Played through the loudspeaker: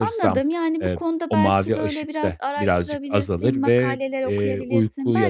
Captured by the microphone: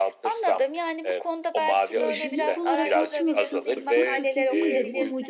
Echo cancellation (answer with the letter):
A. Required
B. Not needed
A